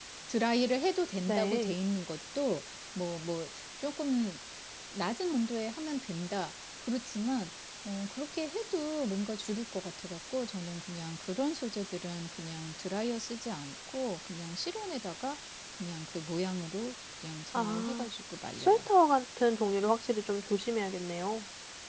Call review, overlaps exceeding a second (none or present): none